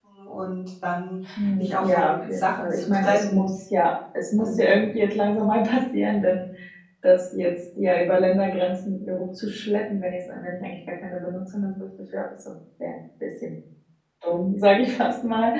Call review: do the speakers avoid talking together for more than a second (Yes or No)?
No